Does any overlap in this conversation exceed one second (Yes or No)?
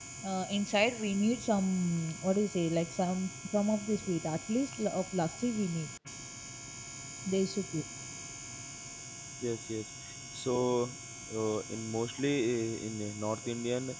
No